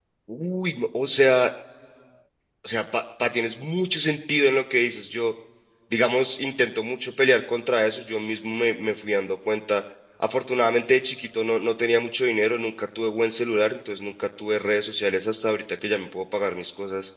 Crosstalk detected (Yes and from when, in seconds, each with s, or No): No